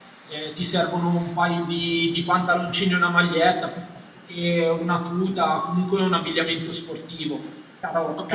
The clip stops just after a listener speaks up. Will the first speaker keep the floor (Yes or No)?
No